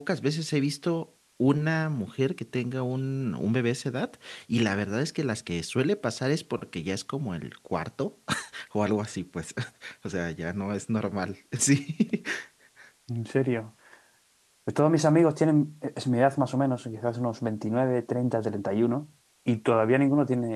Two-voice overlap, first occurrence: none

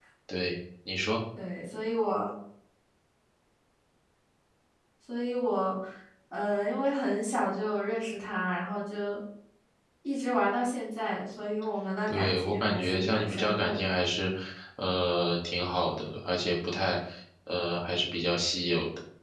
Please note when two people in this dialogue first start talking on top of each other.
12.1 s

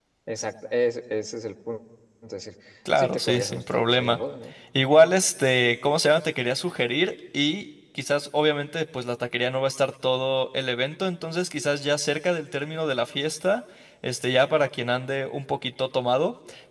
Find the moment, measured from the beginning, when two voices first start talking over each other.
3.0 s

